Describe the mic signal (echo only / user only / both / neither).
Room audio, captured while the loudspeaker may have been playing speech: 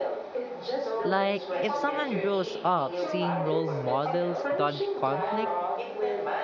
both